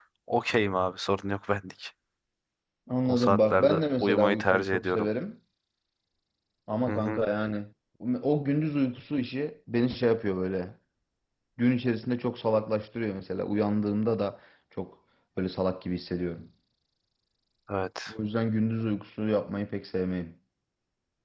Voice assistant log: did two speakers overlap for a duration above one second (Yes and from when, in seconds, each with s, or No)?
Yes, from 3.1 s